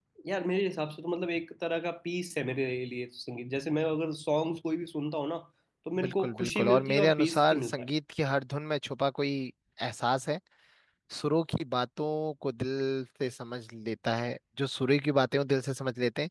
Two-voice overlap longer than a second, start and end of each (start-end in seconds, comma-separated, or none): 6.0-7.9